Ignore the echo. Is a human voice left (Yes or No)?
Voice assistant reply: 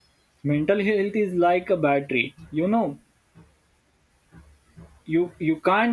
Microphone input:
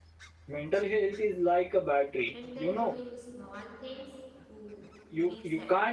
Yes